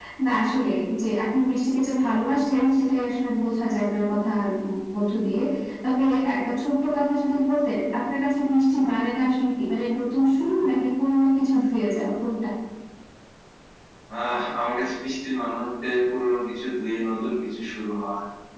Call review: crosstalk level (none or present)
none